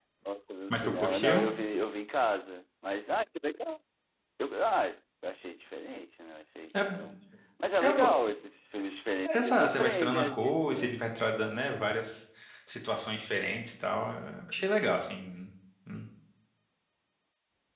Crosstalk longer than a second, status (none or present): present